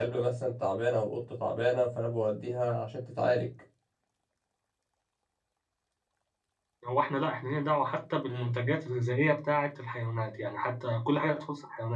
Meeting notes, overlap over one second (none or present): none